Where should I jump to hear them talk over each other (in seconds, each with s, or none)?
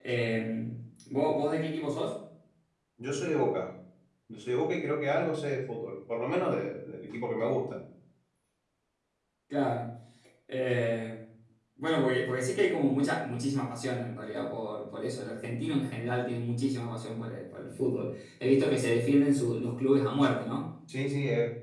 none